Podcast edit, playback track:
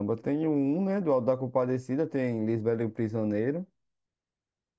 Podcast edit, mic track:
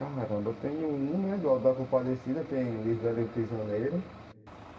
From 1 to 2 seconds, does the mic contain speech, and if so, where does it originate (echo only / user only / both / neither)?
echo only